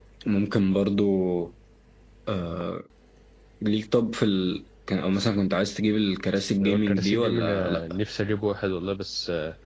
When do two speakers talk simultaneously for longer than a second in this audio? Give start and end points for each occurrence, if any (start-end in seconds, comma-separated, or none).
6.6-7.8